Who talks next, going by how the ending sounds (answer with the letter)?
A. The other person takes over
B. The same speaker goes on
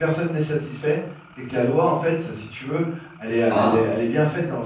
B